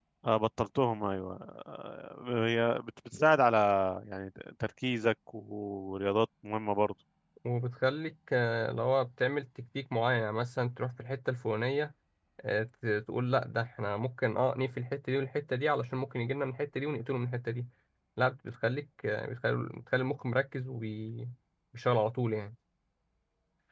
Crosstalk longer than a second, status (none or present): none